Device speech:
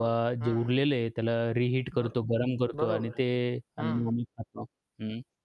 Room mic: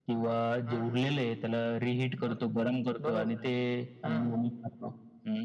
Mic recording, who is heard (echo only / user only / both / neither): echo only